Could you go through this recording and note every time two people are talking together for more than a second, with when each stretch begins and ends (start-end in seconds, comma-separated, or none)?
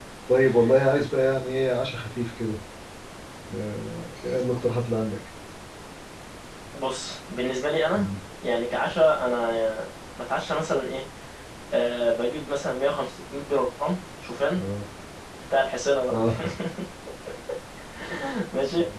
none